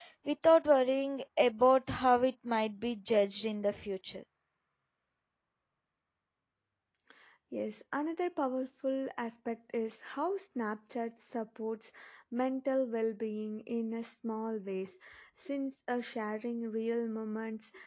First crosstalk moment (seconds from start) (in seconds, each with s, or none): none